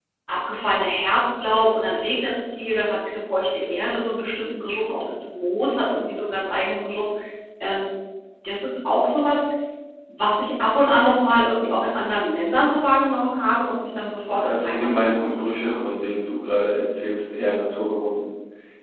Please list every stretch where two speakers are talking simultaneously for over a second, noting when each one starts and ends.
14.3-15.7

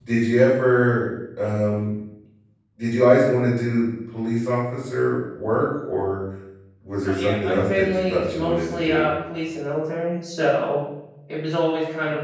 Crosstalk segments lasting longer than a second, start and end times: 7.0-9.0

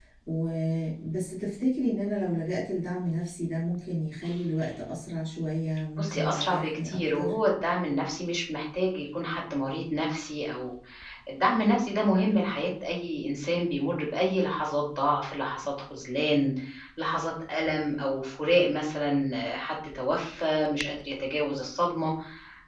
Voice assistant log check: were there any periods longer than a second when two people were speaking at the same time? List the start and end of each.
6.0-7.3

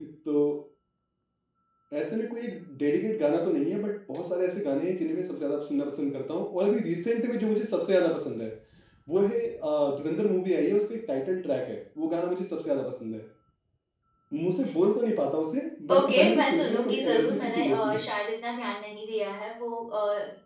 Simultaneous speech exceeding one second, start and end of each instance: 15.9-18.0

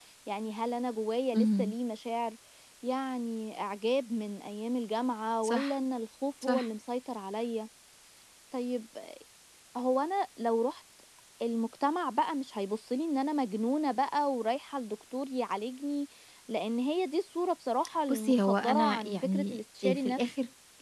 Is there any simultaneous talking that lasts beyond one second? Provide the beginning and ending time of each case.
18.1-20.2

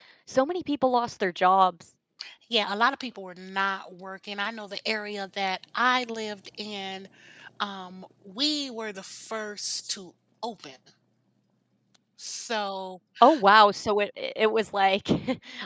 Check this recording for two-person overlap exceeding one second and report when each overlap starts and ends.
none

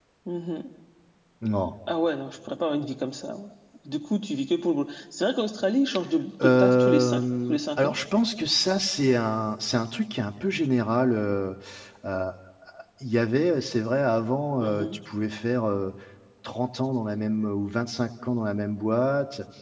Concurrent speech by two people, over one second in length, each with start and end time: 6.4-8.0

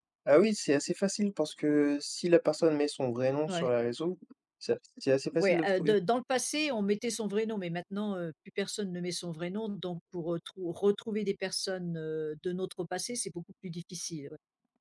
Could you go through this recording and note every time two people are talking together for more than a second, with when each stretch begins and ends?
none

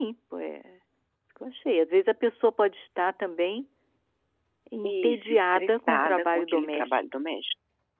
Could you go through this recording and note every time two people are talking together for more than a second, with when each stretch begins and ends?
4.8-7.2

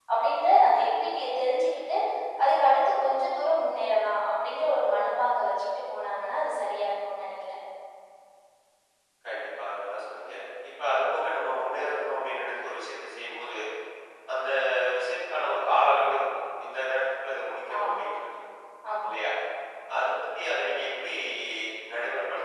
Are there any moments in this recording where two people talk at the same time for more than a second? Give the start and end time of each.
none

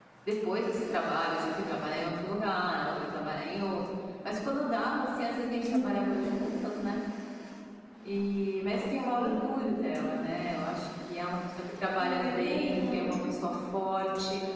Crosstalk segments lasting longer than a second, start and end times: 12.0-13.2

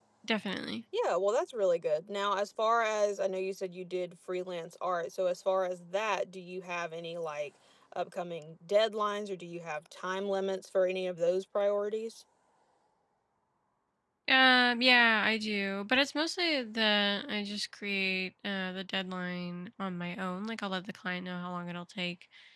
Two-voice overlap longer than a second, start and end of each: none

